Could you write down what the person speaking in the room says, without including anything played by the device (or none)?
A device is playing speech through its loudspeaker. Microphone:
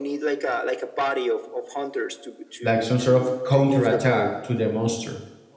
like some sort of counter attack to the monster